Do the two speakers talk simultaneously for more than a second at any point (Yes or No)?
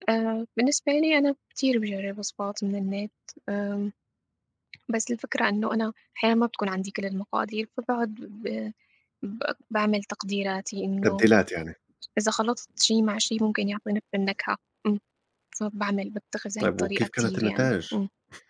Yes